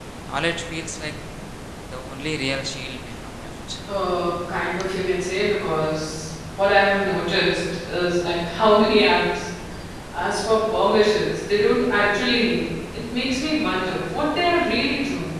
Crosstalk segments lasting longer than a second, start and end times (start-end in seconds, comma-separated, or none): none